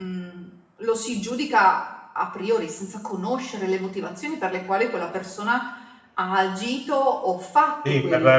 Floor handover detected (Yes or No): Yes